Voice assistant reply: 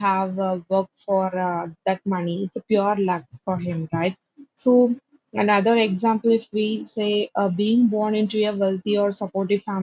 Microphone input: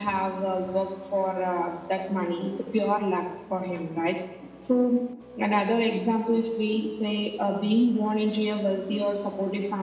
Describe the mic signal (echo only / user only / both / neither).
echo only